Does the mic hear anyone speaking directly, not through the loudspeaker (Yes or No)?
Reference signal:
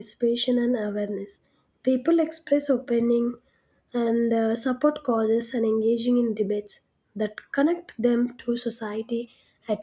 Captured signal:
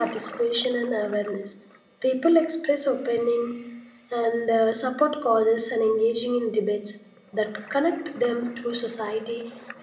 No